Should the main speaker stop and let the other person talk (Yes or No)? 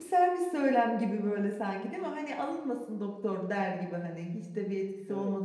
Yes